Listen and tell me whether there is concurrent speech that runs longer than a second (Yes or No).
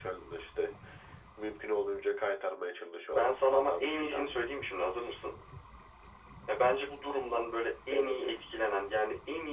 Yes